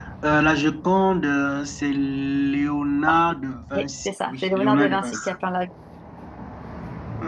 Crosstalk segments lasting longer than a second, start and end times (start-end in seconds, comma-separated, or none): 3.8-5.2